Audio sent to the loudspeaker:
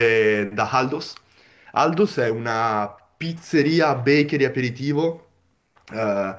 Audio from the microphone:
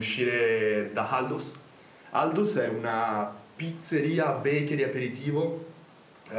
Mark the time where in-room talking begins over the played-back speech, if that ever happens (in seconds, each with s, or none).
none